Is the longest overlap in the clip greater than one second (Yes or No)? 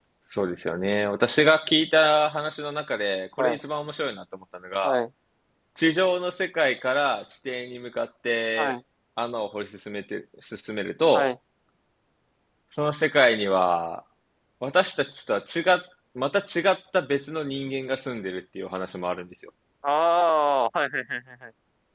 No